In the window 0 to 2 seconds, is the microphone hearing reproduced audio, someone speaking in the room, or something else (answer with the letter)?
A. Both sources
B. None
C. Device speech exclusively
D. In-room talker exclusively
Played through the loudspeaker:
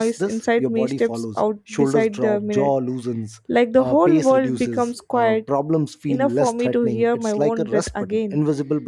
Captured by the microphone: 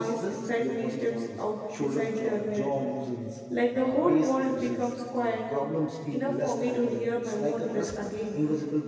C